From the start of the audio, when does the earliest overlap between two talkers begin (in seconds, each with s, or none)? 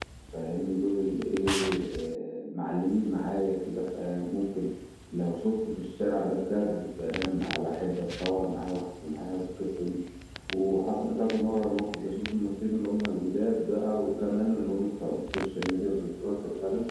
none